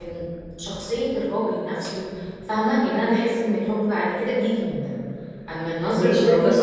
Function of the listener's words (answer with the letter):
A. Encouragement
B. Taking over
B